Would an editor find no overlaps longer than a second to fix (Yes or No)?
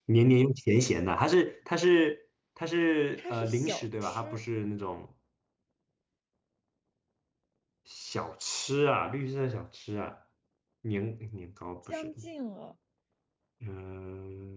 No